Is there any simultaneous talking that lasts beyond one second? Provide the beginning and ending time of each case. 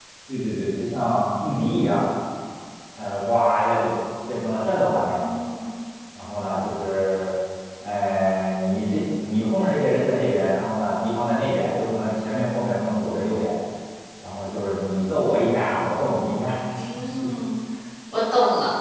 none

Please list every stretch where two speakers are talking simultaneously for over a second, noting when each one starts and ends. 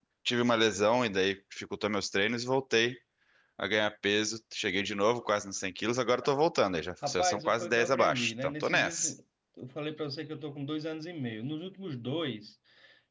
7.1-9.1

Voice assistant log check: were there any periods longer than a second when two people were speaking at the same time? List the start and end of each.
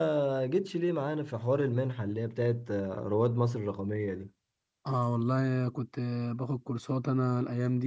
none

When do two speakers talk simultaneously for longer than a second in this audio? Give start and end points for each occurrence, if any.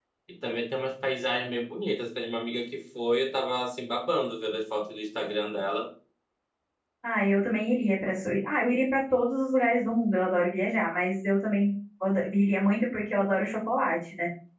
none

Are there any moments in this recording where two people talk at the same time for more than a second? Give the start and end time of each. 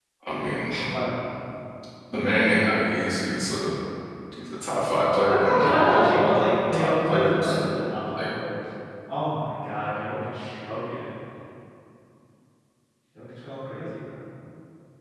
5.3-7.6

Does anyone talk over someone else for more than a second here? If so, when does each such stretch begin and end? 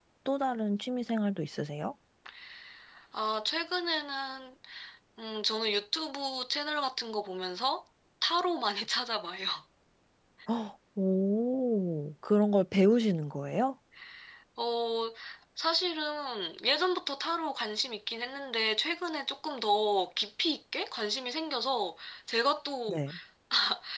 none

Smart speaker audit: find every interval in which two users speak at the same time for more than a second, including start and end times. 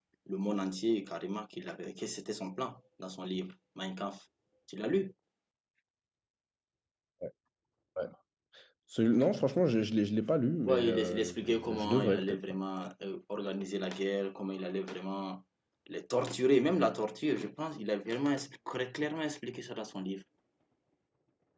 10.6-12.4

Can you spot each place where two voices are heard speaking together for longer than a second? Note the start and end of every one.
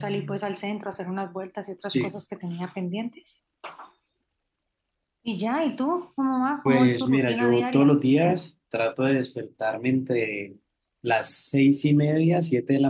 6.6-7.9

